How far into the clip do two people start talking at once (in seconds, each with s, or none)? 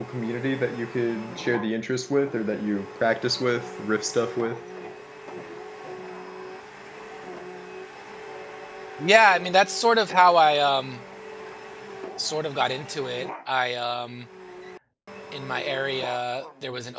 none